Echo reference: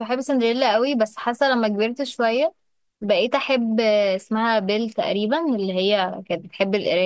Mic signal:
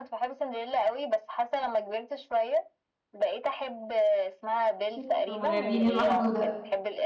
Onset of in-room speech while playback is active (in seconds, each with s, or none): 4.9 s